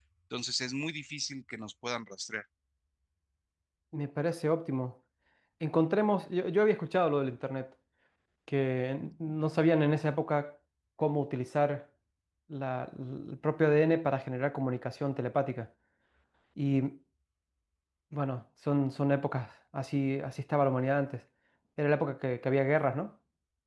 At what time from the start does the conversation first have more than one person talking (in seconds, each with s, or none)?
none